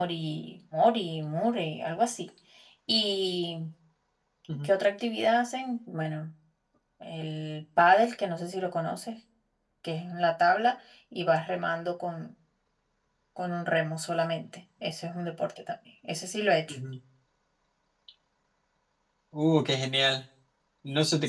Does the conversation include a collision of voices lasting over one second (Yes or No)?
No